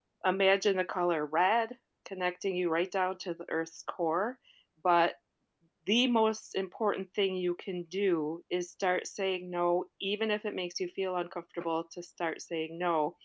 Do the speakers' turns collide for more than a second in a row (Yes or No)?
No